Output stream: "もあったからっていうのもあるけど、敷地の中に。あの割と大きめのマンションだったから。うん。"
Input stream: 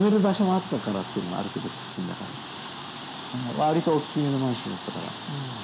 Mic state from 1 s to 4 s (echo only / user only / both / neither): echo only